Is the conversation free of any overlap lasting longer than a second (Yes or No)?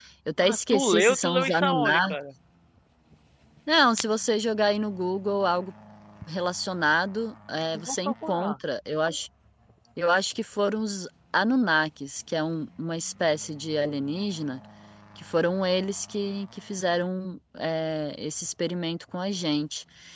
No